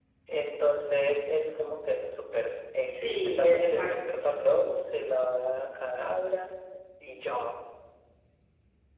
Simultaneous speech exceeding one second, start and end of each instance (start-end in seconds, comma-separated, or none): 2.9-4.4